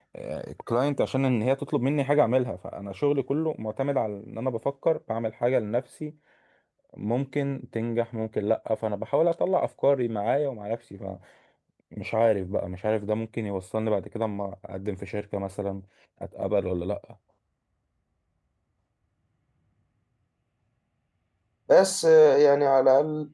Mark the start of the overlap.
none

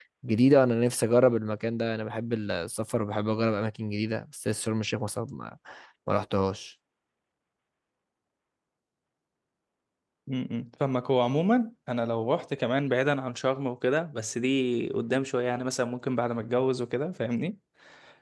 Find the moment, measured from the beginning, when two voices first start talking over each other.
none

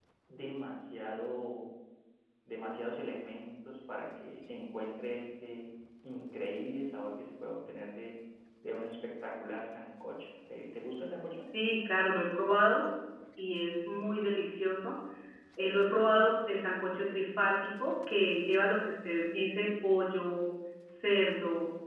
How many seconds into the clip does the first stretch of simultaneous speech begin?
none

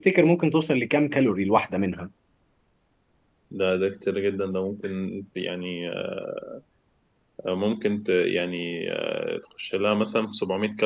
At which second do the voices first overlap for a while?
none

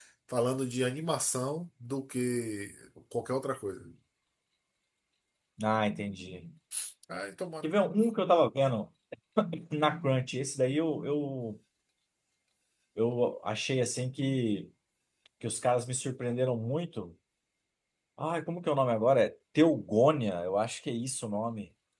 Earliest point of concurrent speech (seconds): none

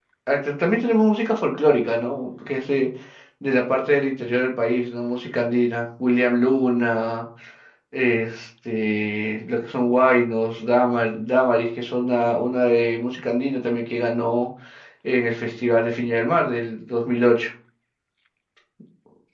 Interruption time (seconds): none

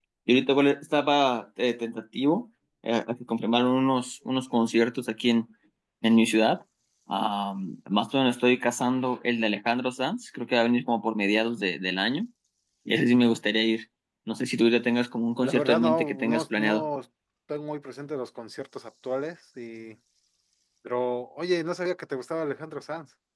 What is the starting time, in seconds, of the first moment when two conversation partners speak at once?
15.4 s

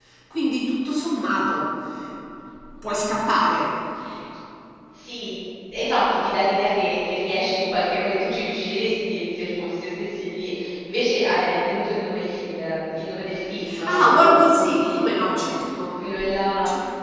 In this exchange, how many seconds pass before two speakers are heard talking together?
13.7 s

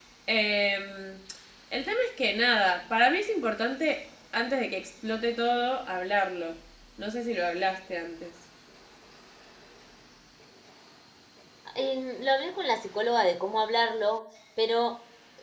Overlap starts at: none

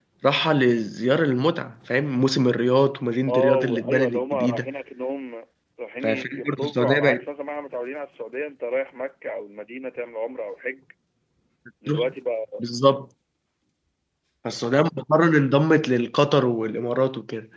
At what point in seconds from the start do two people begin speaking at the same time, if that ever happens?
3.3 s

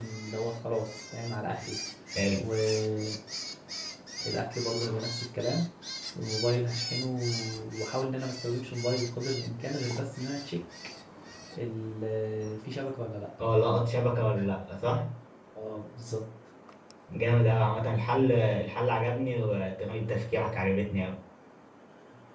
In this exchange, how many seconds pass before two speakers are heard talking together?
none

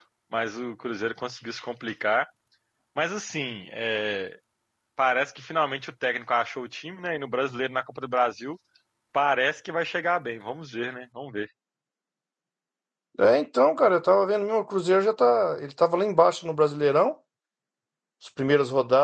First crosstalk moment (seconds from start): none

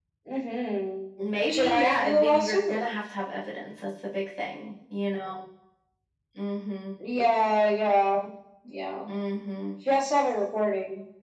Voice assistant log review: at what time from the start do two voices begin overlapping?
1.2 s

